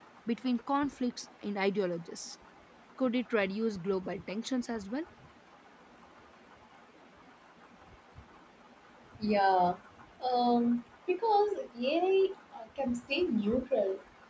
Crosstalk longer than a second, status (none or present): none